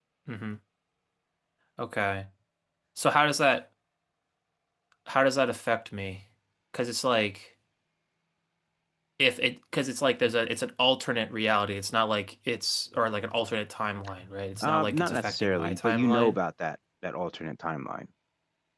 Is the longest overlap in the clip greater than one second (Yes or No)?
Yes